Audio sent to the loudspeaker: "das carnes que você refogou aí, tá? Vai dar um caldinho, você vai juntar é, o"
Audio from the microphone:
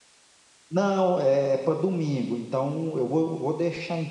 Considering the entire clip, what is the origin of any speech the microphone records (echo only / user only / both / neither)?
user only